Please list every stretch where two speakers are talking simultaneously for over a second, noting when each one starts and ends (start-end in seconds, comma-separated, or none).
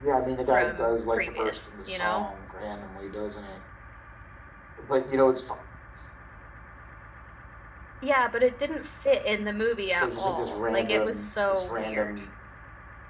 0.5-2.2, 9.9-12.1